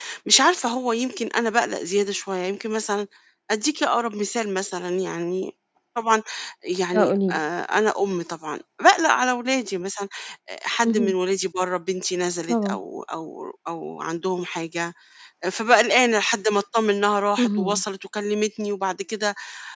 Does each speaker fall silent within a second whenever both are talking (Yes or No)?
Yes